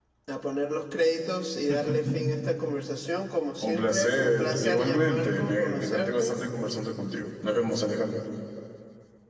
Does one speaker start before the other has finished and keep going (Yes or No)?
Yes